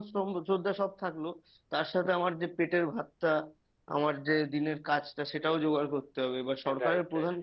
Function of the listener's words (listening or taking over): listening